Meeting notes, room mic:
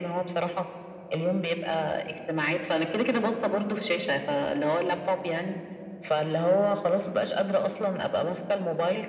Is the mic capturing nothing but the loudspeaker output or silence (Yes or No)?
Yes